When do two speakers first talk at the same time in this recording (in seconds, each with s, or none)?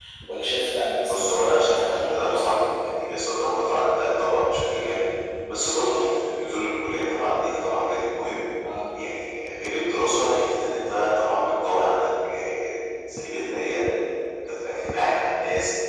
1.1 s